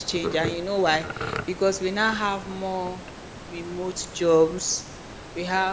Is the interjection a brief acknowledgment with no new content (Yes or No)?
Yes